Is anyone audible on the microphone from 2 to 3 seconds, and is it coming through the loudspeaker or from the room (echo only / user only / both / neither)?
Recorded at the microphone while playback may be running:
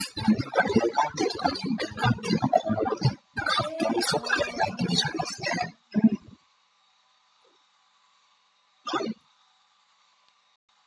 echo only